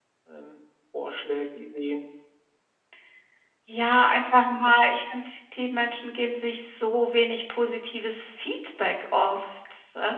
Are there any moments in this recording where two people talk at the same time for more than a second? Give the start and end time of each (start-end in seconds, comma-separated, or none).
none